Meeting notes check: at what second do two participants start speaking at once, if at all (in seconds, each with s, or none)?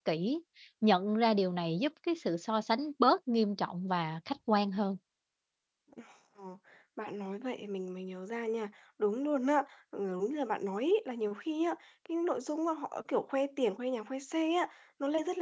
none